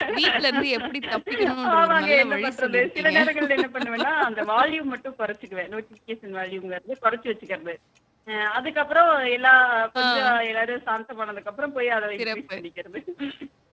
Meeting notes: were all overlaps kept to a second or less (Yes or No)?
No